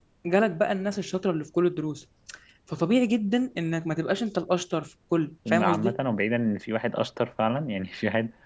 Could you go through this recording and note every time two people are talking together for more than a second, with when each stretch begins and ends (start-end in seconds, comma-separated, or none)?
none